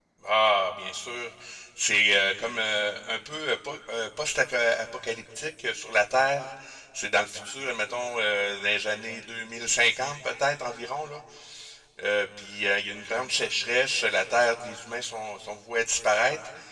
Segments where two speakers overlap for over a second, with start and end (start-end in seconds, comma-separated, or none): none